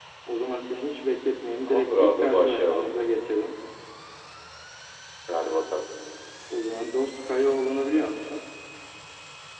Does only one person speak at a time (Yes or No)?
No